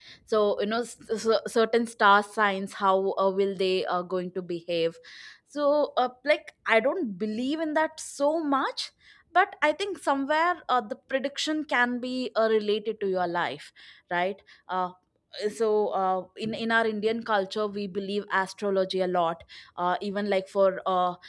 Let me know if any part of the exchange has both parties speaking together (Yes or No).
No